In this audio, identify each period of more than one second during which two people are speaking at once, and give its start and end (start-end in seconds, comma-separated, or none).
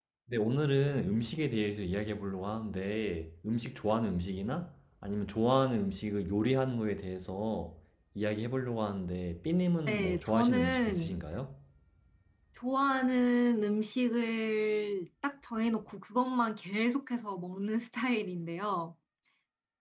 9.9-11.2